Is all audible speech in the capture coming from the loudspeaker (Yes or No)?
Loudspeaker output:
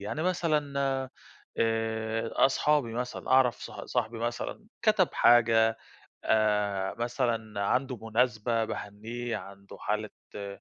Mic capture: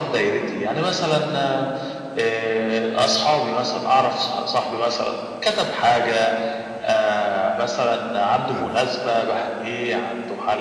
No